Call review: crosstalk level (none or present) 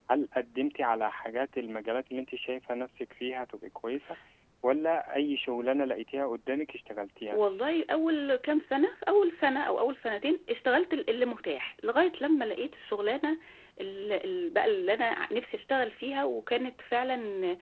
none